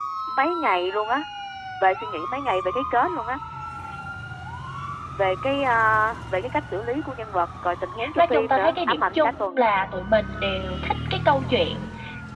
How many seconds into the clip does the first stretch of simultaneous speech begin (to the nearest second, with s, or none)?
8 s